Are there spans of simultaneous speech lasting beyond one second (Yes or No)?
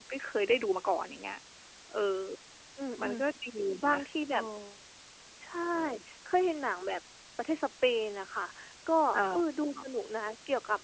No